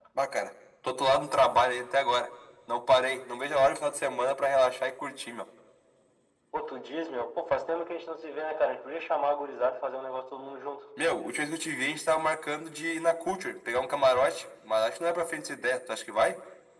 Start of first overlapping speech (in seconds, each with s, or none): none